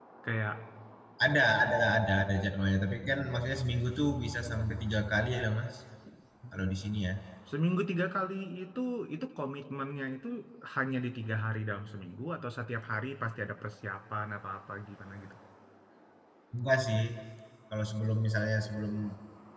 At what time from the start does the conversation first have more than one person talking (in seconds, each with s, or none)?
none